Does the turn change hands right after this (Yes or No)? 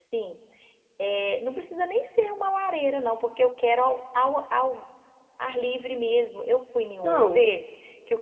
No